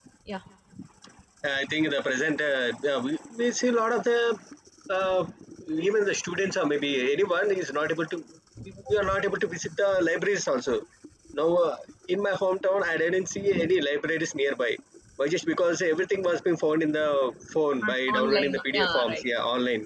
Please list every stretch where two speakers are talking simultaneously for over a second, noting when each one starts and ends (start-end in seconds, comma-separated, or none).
17.8-19.2